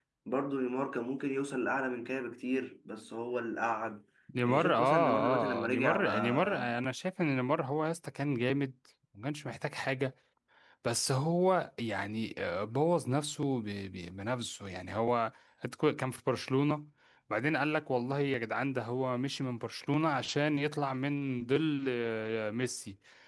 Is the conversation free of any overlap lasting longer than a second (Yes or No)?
No